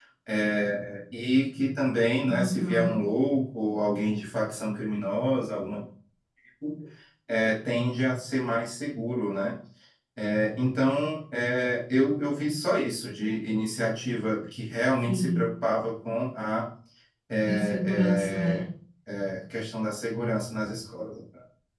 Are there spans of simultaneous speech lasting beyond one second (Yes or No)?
Yes